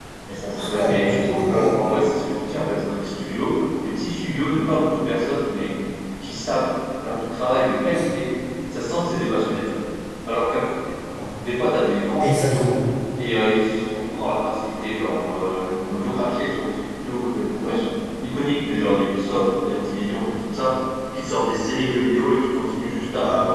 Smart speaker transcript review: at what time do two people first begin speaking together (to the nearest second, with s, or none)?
1 s